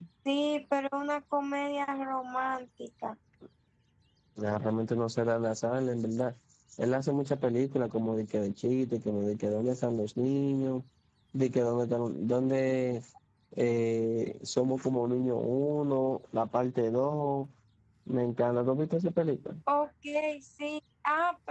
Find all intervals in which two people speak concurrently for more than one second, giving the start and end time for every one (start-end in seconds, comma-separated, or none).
none